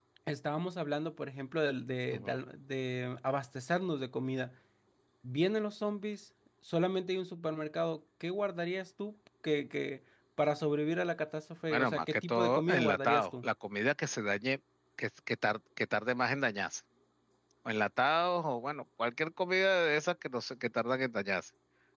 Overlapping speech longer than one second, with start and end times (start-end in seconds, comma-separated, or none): 11.7-13.5